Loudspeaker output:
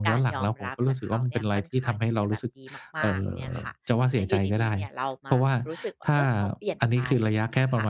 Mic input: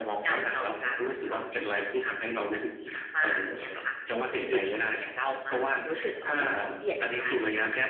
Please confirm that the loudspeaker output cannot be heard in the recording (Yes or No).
No